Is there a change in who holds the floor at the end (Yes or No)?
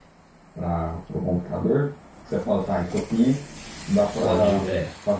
No